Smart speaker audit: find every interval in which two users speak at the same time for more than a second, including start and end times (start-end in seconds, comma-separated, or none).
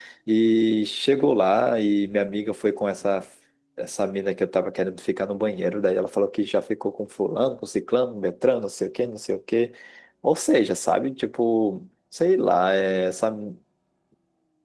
none